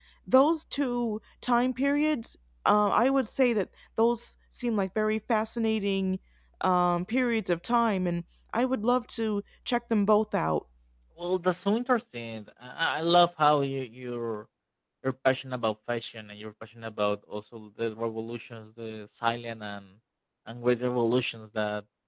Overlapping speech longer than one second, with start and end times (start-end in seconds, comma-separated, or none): none